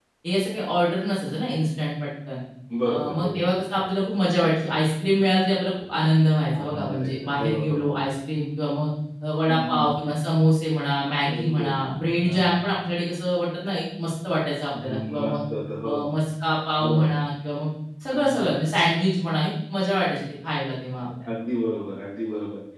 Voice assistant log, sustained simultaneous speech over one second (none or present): present